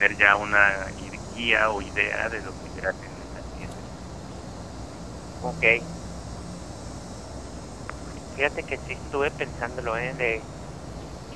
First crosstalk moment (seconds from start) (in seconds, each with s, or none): none